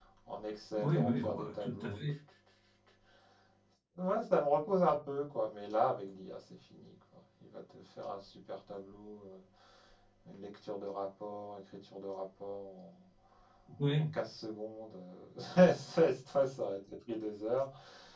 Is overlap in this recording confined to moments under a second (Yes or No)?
No